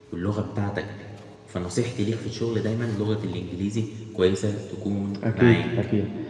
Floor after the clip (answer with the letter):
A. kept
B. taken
B